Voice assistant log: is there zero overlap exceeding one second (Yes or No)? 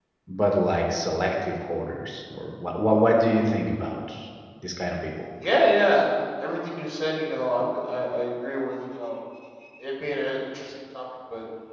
Yes